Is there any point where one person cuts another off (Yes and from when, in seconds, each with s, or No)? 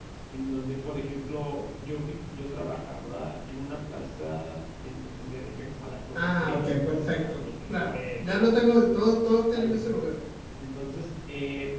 Yes, from 6.2 s